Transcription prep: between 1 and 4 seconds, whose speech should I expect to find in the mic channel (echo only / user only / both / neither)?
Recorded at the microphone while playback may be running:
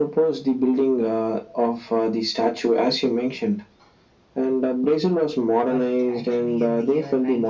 echo only